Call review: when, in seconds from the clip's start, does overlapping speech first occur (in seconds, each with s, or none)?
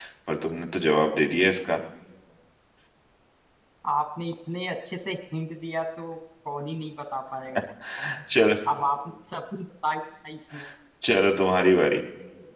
none